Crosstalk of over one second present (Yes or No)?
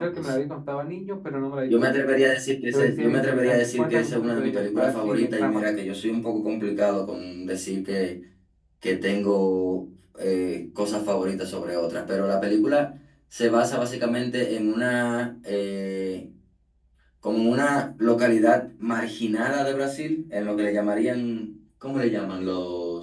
Yes